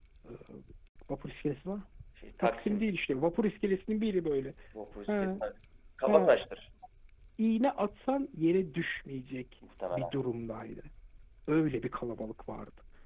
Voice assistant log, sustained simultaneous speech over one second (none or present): none